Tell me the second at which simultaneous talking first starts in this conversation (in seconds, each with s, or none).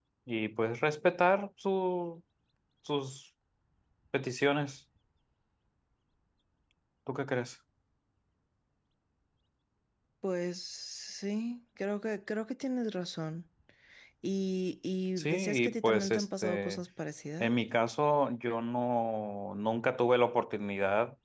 15.2 s